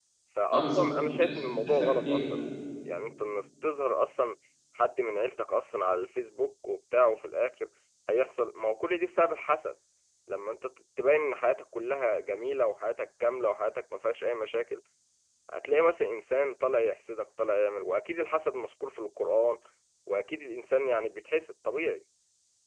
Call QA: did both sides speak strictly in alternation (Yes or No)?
No